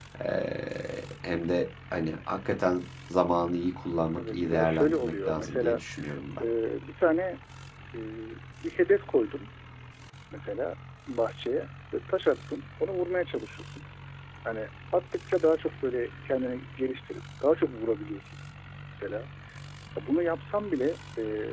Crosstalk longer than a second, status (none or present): present